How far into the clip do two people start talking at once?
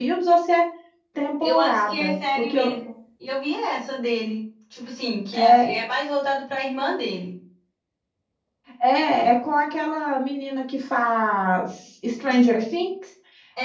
1.4 s

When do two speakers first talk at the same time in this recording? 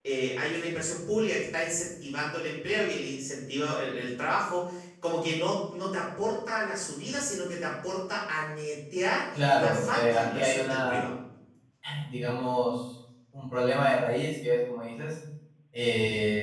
9.3 s

